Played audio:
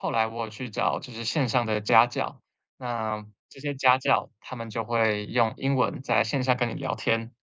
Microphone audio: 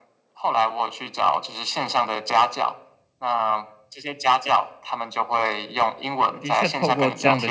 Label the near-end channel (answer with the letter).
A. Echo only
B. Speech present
B